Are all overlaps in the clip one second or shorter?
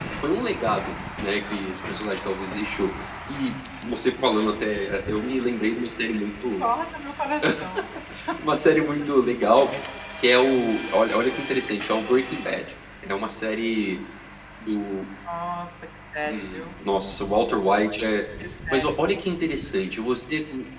Yes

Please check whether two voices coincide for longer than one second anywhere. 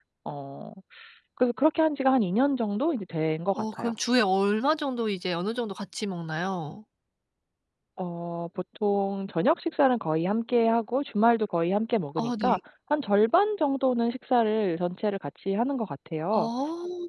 No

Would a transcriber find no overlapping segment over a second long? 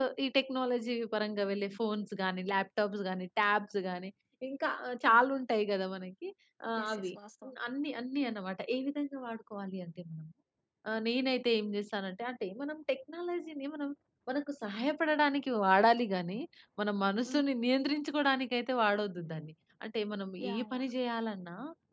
Yes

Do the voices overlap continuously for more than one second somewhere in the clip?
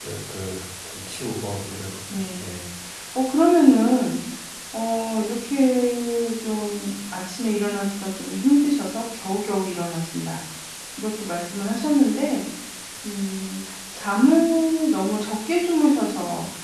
No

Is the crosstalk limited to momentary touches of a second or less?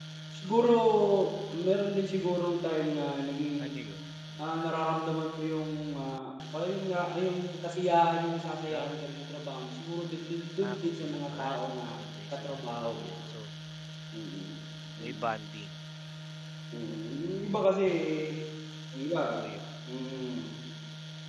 No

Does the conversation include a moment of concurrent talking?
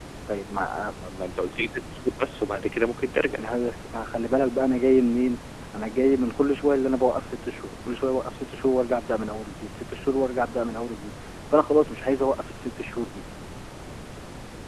No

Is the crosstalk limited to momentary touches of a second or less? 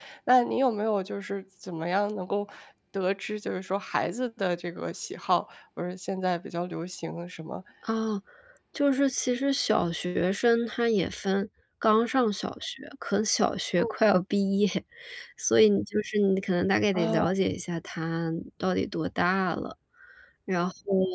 Yes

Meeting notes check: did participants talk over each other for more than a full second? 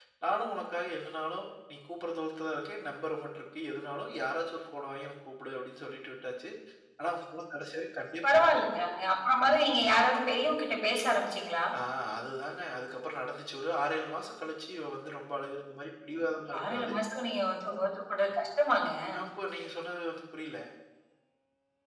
No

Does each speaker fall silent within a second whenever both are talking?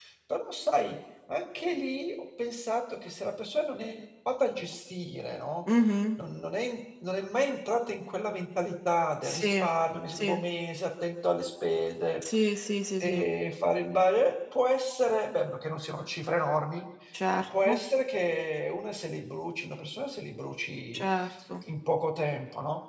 Yes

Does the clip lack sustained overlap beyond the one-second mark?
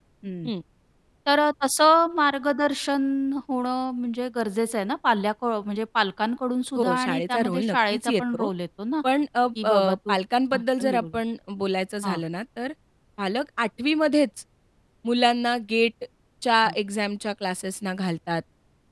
No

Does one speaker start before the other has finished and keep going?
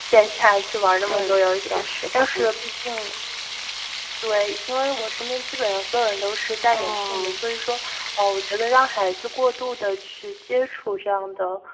Yes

